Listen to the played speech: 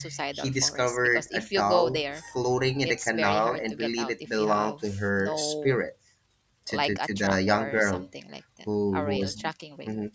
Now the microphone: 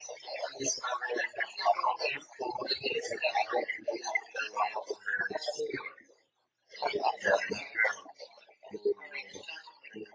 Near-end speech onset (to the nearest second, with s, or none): none